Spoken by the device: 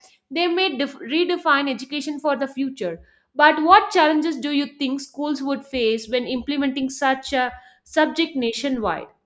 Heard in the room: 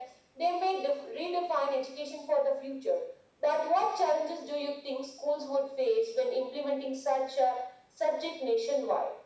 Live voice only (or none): none